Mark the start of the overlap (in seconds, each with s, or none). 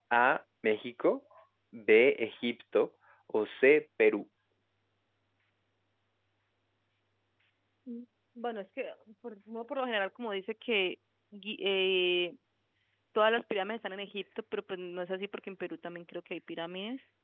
none